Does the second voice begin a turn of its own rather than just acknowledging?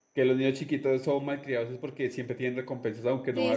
Yes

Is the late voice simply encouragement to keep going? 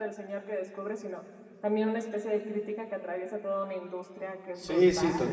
No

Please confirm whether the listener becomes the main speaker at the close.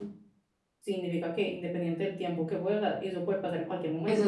Yes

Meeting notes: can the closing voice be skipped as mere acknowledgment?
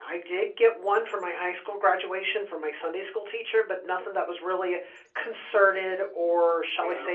No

